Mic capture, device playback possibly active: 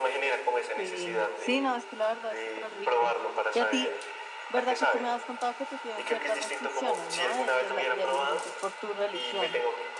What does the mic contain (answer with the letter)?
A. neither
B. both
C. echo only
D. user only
B